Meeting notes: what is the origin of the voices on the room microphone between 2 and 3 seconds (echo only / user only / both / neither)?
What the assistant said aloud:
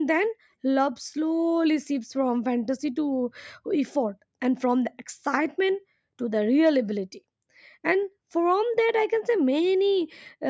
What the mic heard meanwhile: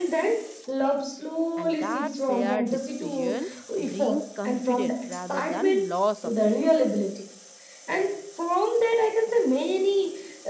both